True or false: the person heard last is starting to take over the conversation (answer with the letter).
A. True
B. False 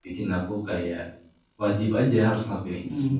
A